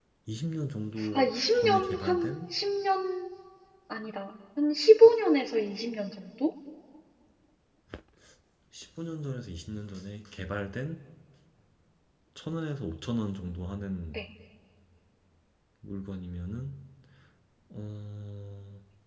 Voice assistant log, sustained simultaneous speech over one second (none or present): present